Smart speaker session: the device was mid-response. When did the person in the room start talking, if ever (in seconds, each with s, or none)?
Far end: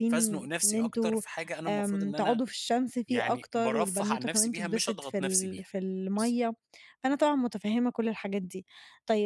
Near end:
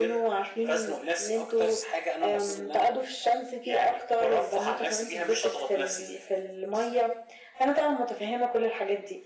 1.6 s